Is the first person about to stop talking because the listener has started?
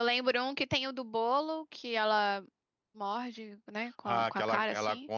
Yes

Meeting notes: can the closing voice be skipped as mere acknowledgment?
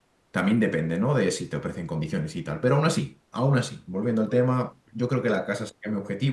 Yes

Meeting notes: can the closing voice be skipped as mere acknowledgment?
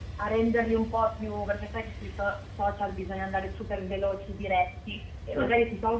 Yes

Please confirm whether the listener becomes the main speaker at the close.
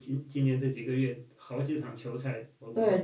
Yes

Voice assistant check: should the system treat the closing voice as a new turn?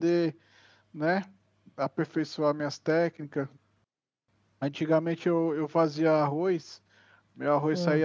No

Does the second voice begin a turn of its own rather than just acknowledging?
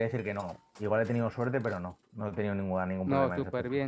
Yes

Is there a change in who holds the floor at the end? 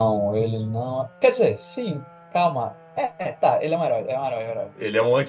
Yes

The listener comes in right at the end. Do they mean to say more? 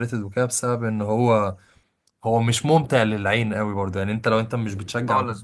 No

